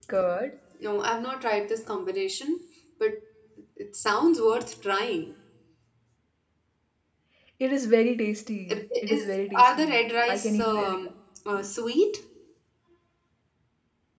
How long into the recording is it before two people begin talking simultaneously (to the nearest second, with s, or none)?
9 s